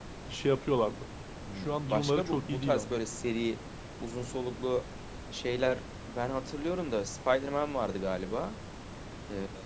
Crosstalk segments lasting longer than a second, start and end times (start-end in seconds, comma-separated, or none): 1.6-2.9